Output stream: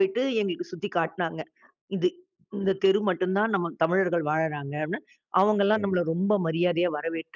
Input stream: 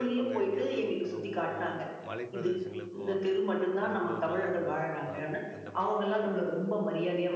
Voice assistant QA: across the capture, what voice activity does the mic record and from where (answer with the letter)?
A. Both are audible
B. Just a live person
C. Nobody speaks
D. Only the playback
A